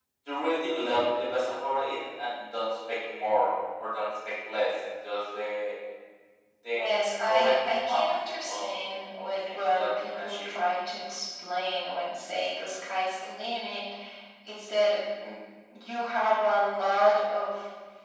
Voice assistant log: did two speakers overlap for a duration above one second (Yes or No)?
Yes